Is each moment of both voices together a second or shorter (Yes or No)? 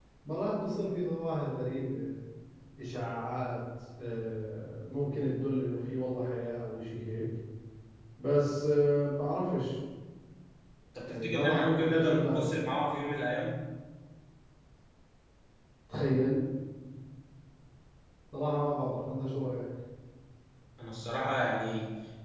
No